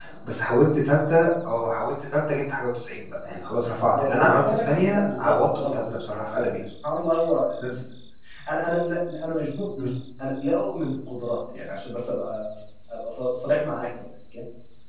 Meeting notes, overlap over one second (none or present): present